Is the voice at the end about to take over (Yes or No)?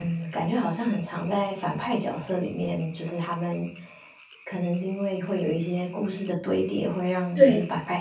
No